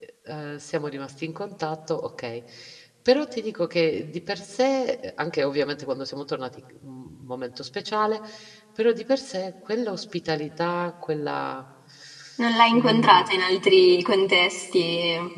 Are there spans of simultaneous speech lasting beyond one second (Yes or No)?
No